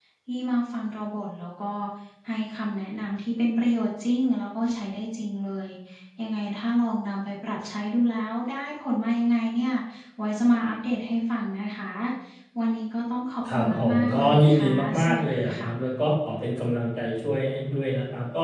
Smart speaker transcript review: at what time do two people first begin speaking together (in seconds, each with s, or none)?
13.4 s